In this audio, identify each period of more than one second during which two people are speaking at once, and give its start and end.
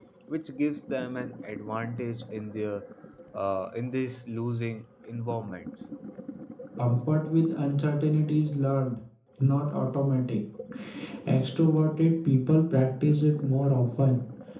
none

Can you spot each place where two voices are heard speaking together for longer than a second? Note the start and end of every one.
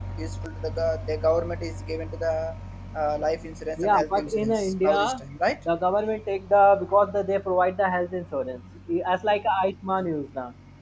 3.8-5.2

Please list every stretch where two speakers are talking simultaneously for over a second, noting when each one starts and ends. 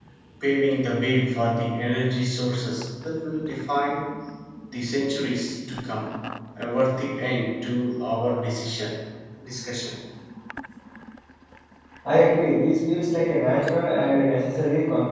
none

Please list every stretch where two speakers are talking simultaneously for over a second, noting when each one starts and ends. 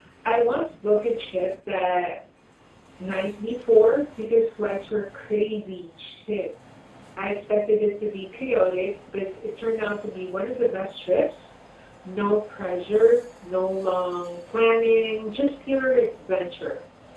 none

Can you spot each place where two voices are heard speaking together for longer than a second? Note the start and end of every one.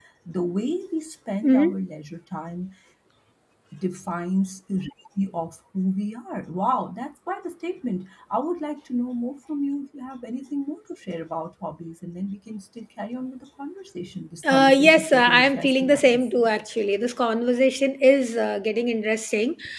14.5-16.4

